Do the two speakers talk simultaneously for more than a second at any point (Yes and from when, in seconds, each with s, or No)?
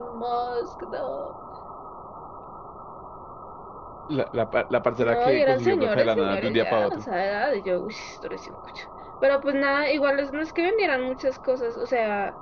Yes, from 5.0 s